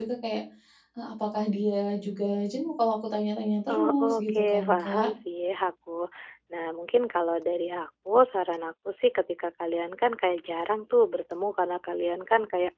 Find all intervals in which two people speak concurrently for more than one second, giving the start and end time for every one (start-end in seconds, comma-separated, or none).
3.7-5.1